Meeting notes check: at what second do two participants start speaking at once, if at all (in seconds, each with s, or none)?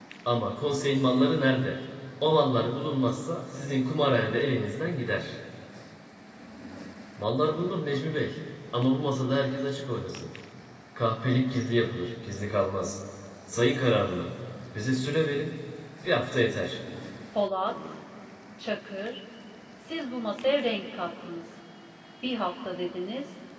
none